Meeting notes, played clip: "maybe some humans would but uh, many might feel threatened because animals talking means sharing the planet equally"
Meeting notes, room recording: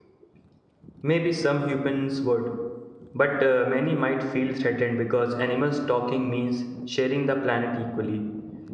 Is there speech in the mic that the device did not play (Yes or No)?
No